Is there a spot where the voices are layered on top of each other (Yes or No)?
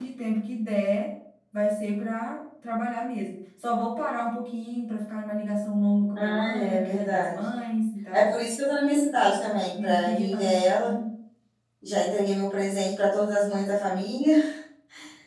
Yes